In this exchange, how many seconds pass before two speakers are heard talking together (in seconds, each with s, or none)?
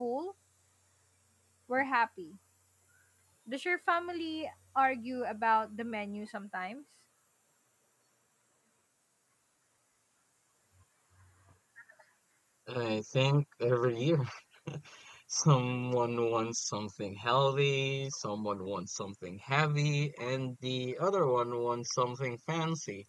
none